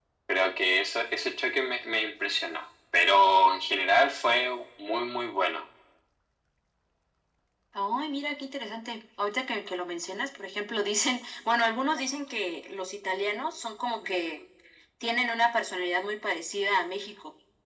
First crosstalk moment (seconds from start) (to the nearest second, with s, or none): none